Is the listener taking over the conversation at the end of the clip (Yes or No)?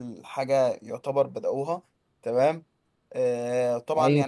No